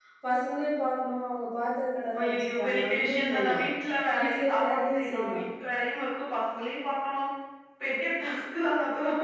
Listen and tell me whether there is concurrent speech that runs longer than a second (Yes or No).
Yes